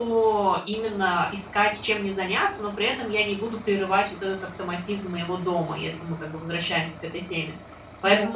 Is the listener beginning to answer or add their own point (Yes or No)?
No